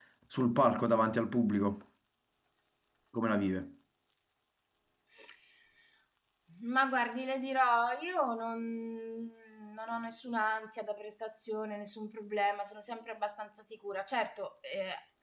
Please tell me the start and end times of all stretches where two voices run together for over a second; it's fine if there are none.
none

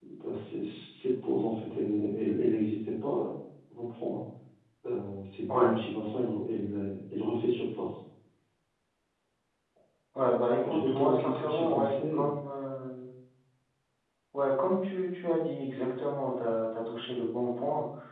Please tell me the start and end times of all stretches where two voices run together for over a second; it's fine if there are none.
10.6-12.3

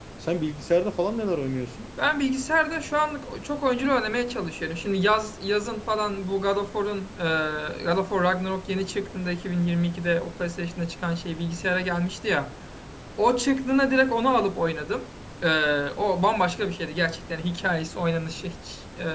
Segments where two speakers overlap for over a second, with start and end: none

